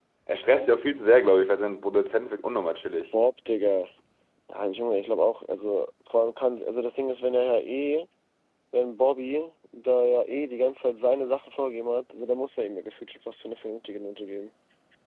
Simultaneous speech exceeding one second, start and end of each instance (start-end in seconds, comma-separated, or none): none